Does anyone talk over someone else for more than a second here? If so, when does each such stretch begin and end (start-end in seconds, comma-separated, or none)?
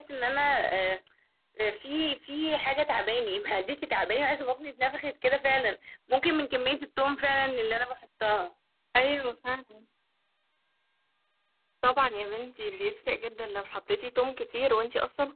none